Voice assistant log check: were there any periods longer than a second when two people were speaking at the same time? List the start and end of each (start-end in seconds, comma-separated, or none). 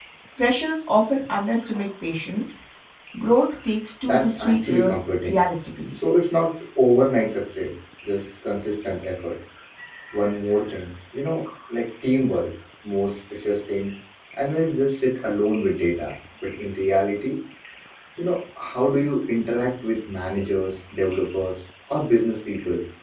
4.0-5.4